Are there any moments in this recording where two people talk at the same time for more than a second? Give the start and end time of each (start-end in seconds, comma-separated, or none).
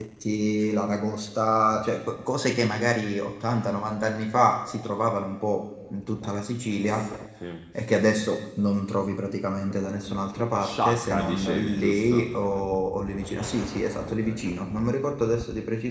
10.6-12.3